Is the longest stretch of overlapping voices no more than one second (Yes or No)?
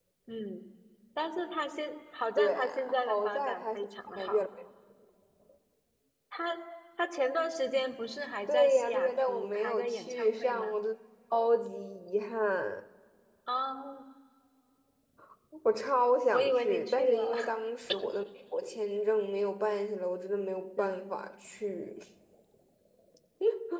No